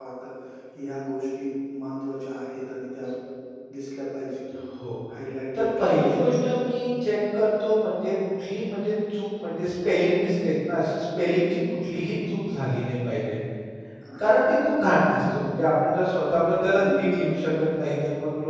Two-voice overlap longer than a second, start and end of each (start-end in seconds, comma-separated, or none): 5.5-6.9